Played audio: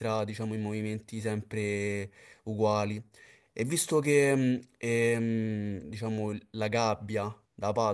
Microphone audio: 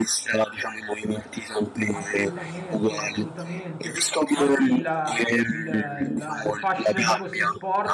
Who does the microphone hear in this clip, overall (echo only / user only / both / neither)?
both